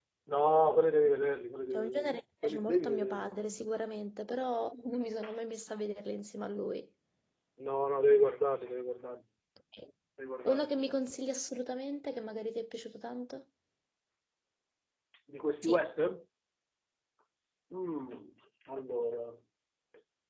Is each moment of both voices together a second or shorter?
No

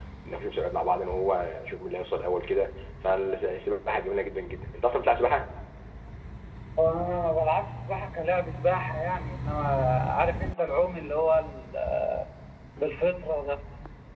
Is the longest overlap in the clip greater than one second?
No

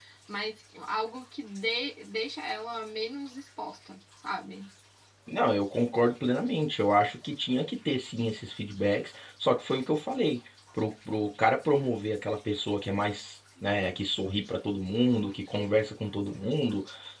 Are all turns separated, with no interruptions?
Yes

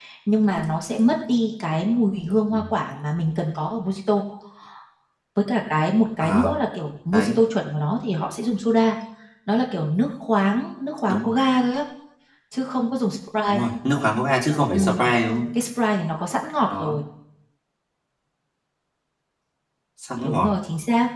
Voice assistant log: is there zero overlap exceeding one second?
Yes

